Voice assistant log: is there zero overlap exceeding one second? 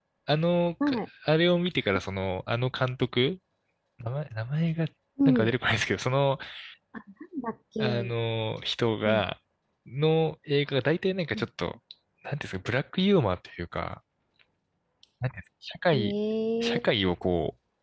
Yes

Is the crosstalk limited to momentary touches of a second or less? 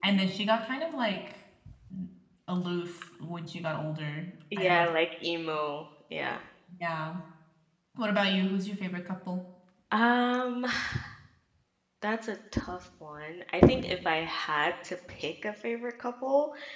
Yes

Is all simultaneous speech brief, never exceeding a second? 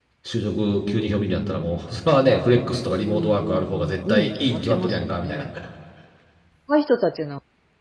No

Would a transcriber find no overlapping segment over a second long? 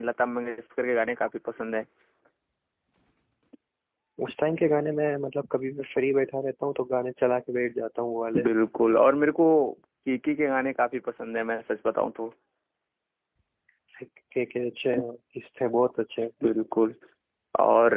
Yes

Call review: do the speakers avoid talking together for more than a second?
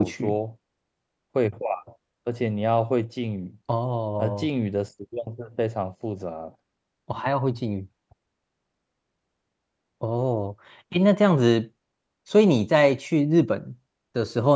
Yes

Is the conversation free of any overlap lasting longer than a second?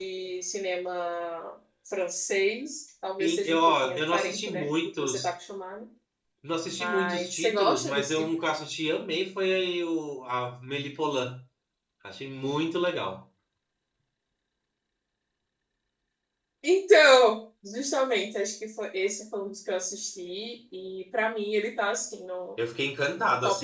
No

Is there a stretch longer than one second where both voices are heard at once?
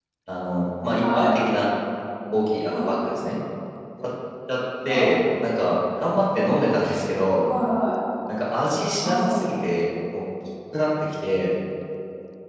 No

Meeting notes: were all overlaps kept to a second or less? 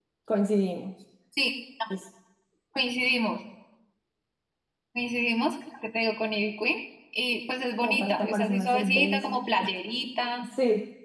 No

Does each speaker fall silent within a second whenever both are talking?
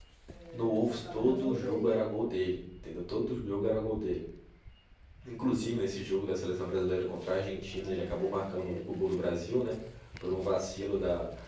No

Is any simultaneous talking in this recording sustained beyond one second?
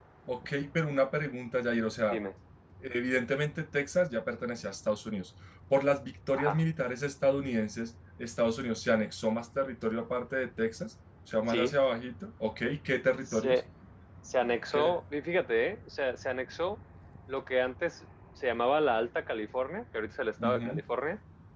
No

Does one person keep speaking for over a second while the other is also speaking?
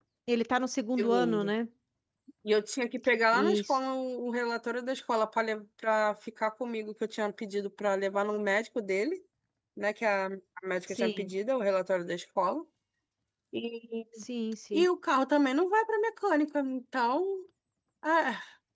No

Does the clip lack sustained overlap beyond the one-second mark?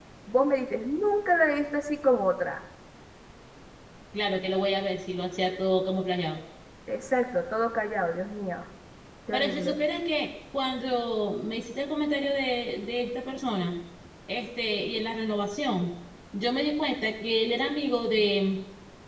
Yes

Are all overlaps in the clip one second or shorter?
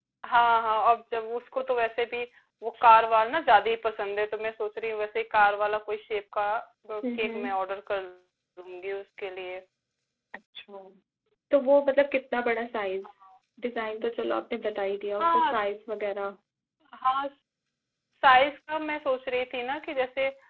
Yes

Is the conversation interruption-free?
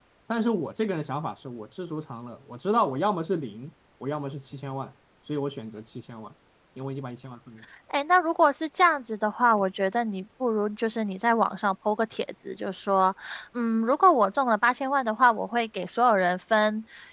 Yes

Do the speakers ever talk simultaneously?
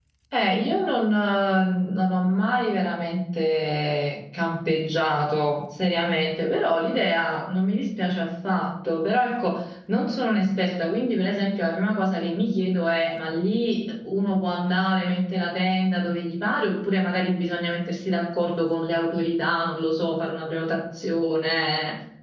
No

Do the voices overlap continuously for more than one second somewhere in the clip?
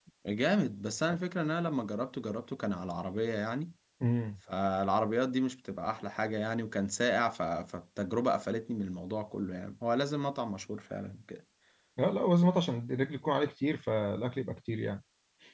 No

